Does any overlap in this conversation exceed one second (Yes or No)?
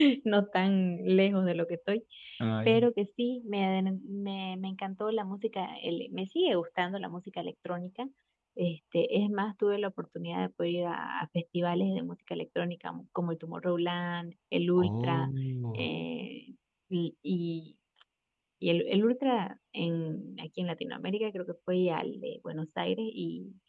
No